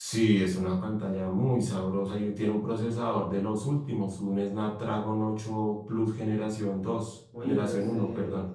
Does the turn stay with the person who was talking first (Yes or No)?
No